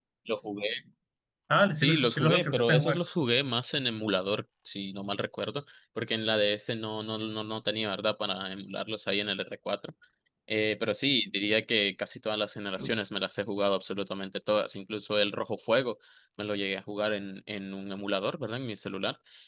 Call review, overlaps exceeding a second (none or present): present